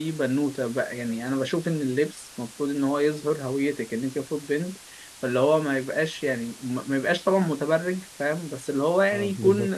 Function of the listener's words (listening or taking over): listening